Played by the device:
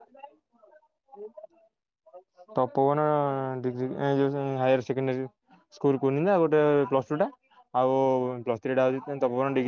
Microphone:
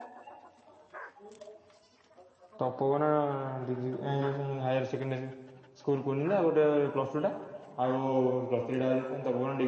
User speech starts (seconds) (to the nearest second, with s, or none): none